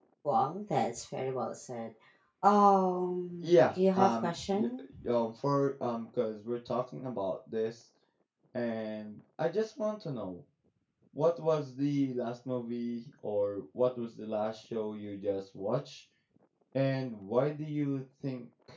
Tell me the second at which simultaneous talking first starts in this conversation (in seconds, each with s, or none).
3.4 s